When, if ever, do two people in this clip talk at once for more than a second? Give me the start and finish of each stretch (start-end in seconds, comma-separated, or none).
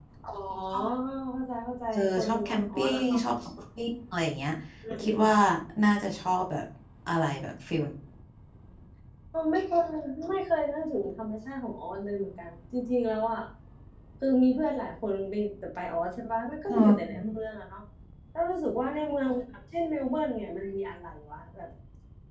1.9-3.2